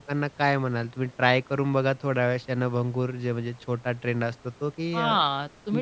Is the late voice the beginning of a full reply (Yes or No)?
Yes